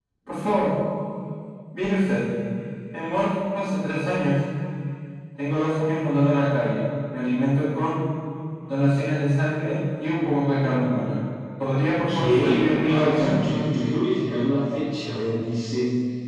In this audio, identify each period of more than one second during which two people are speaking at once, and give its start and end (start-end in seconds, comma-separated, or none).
12.1-13.3